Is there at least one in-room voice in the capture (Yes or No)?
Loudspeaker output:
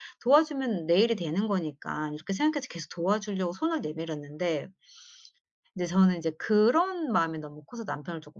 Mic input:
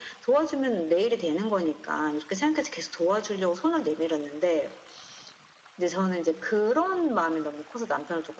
No